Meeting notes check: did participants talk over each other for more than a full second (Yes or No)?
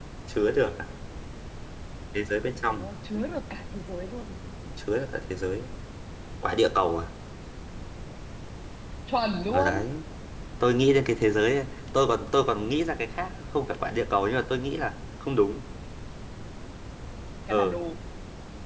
No